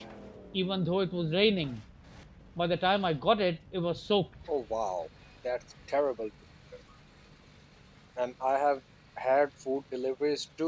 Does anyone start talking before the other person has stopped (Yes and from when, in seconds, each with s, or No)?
No